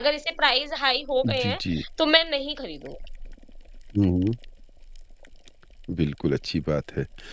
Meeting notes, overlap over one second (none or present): none